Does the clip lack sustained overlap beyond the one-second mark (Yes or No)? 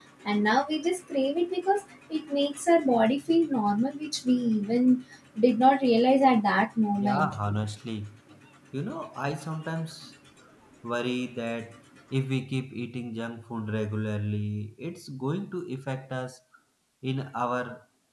Yes